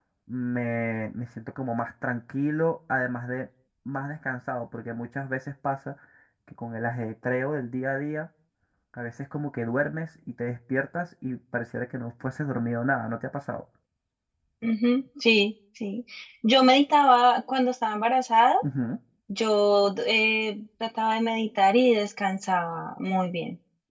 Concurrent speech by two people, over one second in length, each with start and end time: none

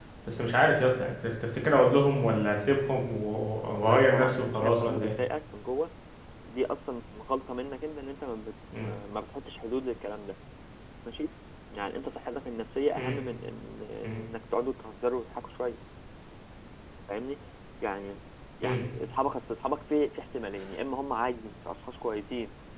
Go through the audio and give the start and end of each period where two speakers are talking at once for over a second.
3.8-5.1

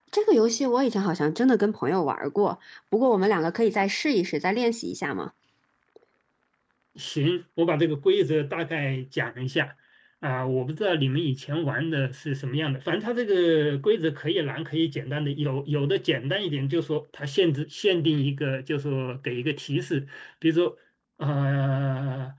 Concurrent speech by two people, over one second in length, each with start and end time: none

